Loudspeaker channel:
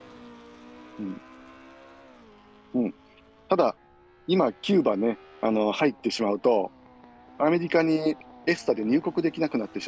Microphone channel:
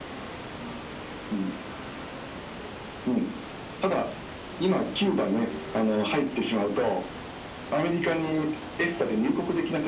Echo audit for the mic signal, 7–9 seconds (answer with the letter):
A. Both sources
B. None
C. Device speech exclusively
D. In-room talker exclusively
C